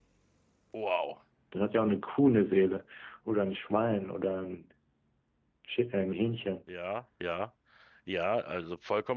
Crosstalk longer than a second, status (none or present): none